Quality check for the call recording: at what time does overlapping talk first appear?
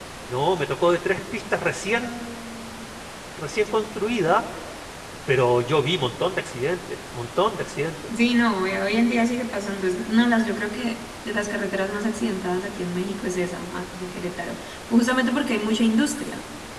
none

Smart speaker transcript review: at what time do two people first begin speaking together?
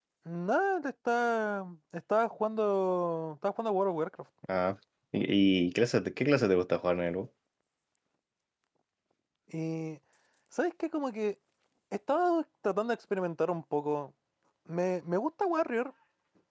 none

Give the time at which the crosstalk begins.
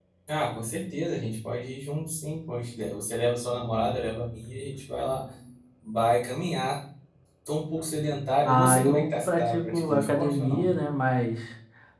8.4 s

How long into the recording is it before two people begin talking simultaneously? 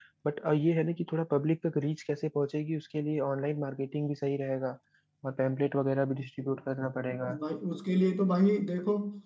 none

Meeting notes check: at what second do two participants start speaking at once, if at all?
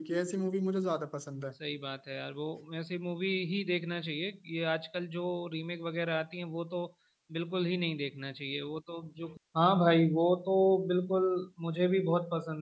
none

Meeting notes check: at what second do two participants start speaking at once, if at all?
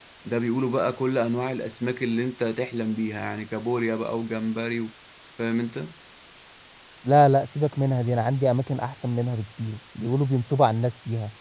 none

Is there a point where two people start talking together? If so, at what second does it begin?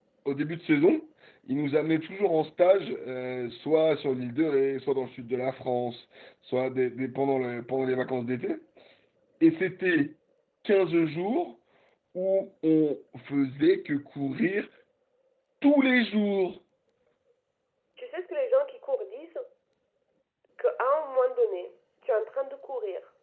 none

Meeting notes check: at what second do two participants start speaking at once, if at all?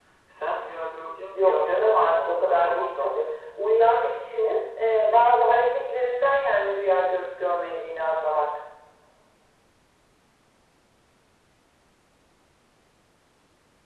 1.3 s

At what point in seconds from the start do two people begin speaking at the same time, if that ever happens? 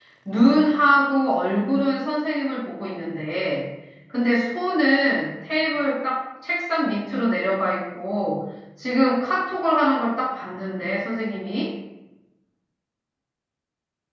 none

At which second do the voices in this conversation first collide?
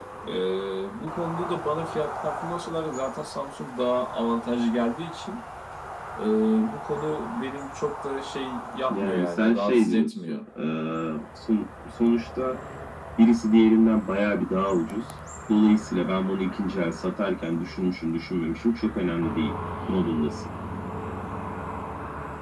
8.9 s

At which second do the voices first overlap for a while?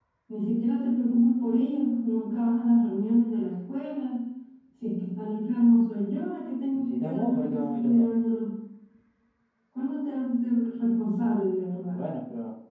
6.7 s

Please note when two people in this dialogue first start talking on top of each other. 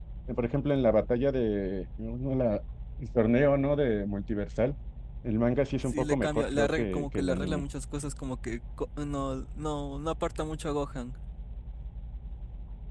5.8 s

